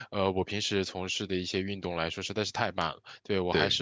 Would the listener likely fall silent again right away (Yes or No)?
Yes